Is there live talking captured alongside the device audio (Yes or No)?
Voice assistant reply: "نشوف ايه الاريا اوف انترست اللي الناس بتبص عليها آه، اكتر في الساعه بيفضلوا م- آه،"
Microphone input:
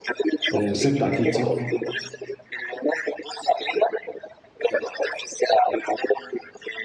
Yes